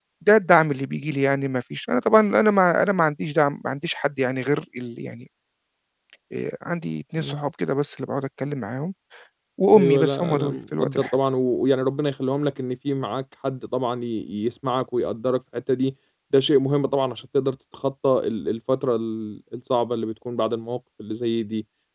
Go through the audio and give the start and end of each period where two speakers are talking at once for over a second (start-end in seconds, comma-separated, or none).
9.7-11.2